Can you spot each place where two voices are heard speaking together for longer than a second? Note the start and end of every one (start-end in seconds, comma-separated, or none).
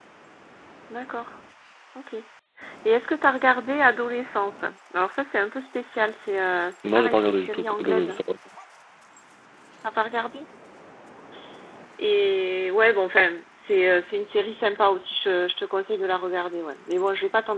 6.8-8.1